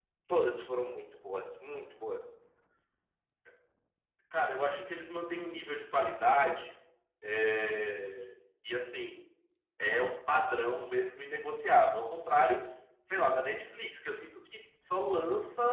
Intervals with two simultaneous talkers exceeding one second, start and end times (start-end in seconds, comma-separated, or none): none